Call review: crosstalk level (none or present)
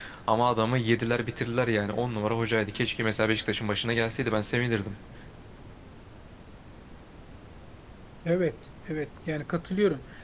none